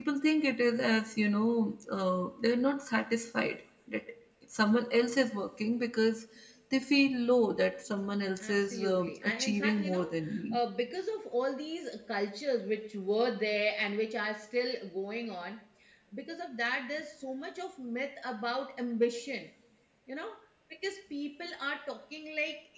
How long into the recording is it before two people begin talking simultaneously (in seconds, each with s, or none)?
8.4 s